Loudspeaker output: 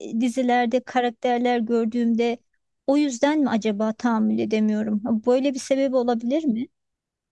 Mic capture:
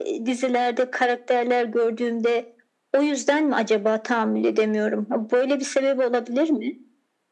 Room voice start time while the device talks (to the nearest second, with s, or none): none